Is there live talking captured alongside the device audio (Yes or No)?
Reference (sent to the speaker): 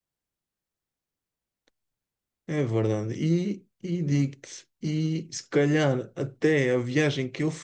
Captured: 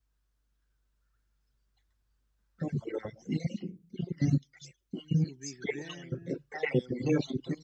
Yes